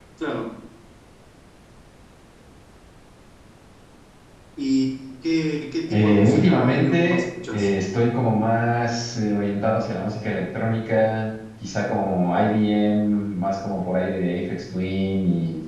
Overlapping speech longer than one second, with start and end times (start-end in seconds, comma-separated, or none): 5.9-7.7